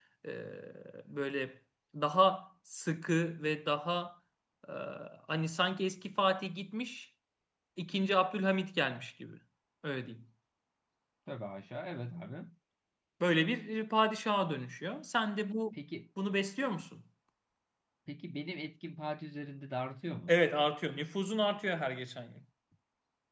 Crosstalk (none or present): none